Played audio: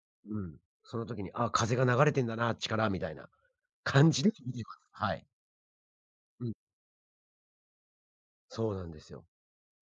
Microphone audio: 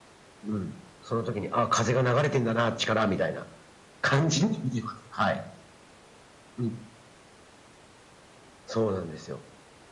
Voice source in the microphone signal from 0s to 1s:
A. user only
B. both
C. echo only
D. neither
C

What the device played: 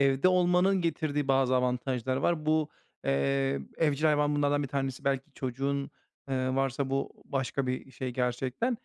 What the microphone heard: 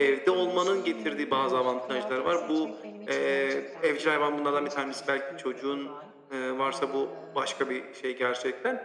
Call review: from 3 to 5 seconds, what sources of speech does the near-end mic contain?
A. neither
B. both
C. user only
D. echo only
B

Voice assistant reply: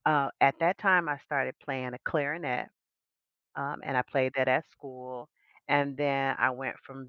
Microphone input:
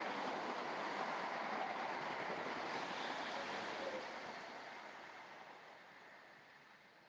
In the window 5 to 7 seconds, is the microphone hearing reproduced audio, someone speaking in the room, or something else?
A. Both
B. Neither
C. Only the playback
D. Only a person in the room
B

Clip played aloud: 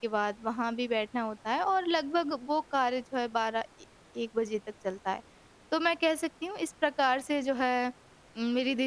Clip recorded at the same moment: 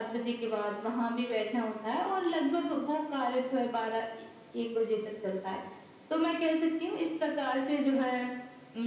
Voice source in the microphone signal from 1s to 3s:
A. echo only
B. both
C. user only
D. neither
A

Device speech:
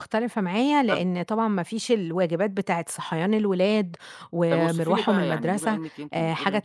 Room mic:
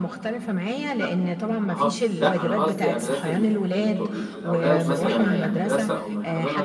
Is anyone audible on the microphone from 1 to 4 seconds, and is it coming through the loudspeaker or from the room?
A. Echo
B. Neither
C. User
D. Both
D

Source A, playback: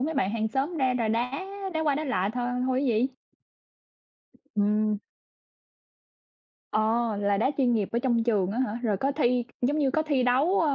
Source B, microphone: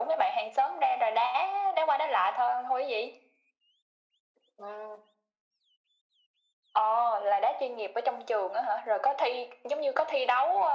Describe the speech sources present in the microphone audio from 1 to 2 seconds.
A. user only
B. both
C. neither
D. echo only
D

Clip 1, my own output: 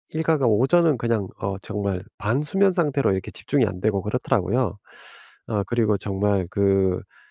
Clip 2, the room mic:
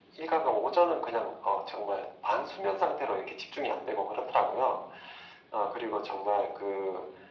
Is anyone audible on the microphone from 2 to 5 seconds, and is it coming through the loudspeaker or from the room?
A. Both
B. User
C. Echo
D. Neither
C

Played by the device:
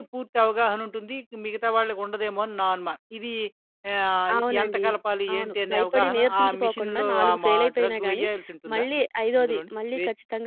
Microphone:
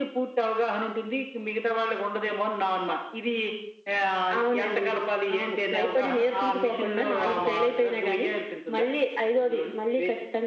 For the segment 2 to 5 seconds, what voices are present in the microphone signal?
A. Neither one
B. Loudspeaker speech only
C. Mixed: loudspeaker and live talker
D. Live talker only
B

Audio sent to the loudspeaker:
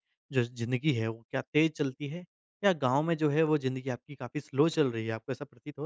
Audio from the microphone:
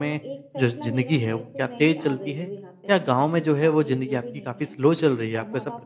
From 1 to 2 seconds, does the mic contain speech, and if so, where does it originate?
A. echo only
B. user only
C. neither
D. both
D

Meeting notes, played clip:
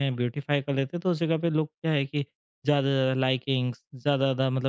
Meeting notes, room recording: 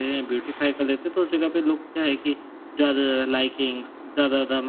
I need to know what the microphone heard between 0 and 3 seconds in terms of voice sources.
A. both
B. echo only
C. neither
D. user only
B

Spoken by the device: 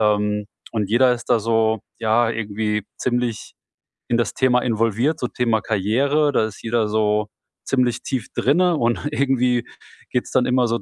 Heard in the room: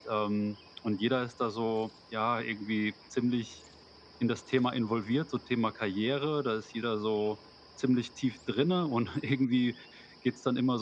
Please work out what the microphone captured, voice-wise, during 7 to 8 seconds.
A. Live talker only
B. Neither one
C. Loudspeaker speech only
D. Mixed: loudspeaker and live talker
C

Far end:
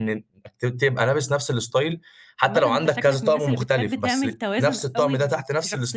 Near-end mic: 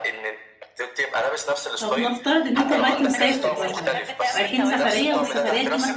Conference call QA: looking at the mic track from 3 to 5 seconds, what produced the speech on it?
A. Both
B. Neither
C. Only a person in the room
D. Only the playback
A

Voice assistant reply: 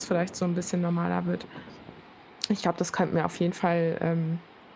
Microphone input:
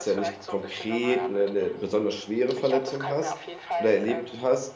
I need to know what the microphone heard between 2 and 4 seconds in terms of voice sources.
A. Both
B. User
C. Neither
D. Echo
A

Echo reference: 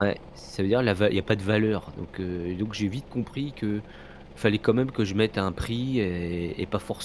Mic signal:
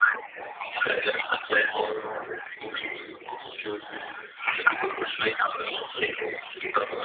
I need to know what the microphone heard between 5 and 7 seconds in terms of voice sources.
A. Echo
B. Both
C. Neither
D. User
A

